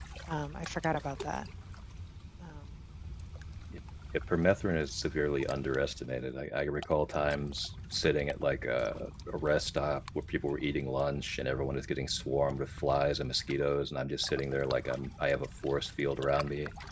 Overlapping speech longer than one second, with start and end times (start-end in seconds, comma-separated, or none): none